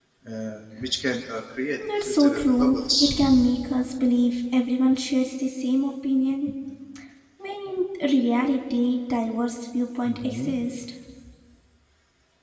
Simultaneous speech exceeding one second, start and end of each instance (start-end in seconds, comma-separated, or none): 2.0-3.2